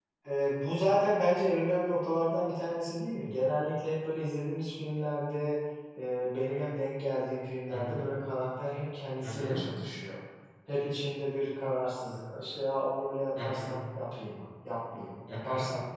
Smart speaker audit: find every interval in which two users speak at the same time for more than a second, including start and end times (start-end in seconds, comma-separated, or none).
none